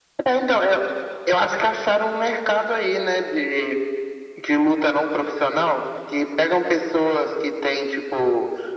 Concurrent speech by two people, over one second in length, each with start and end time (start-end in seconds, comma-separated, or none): none